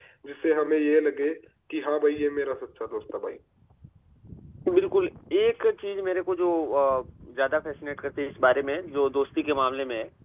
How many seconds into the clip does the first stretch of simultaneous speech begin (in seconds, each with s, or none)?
none